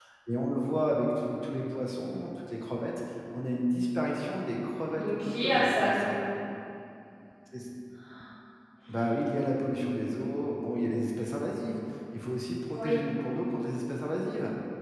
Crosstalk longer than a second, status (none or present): present